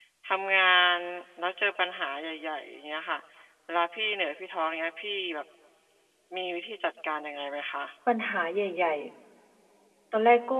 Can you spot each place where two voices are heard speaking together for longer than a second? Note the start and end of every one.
none

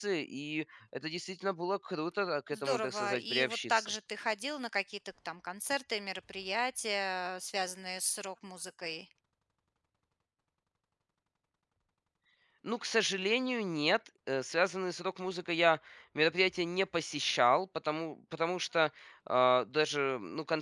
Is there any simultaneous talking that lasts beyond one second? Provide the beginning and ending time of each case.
2.5-3.9

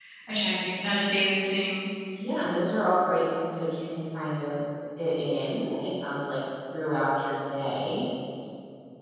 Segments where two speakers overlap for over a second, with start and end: none

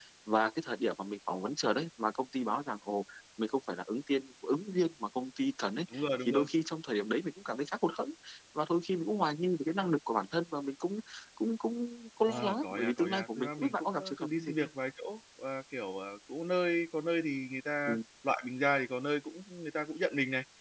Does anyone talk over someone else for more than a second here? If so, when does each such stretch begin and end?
12.3-14.7

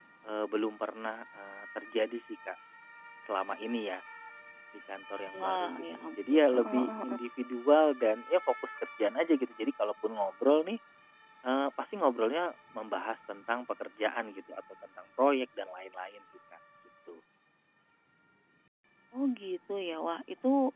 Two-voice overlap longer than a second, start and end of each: 5.4-7.2

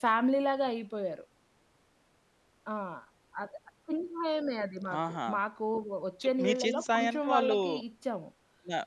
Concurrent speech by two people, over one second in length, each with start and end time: 6.2-7.6

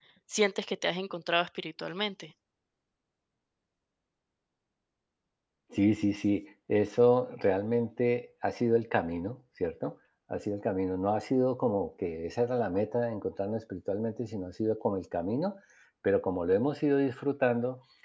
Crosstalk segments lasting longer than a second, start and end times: none

